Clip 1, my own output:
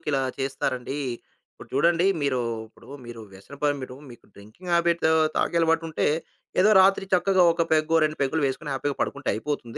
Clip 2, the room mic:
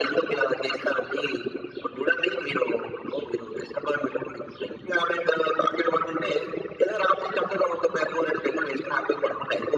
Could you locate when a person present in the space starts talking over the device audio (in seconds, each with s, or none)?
none